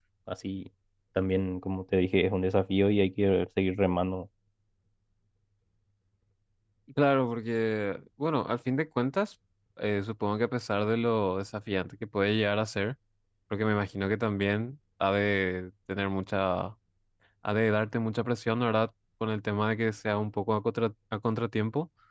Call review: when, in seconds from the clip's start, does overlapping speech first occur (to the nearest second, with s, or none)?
none